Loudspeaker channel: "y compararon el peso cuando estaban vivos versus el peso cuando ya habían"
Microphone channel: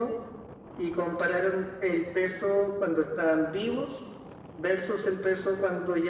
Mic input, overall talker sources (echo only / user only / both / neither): echo only